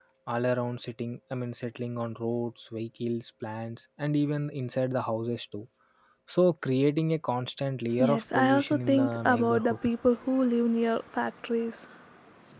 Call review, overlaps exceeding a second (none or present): present